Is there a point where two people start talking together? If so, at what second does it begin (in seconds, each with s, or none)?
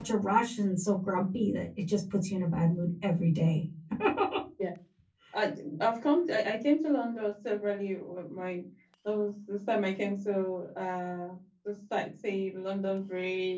none